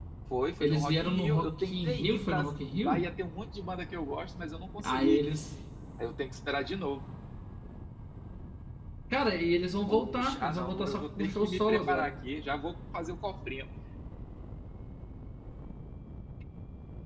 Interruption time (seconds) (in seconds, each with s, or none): 0.6 s